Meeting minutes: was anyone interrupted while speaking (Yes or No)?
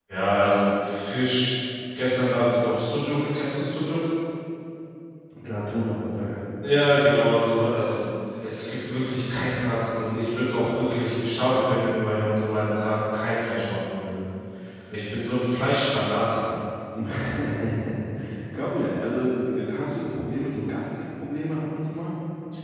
No